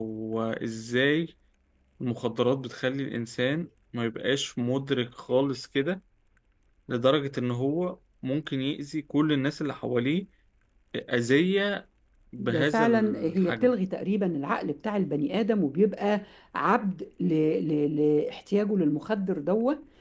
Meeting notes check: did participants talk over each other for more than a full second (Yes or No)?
Yes